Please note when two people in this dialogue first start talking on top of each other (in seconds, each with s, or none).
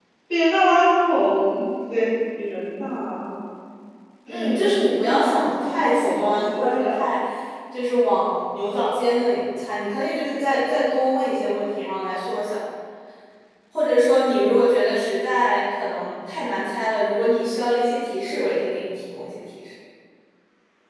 4.3 s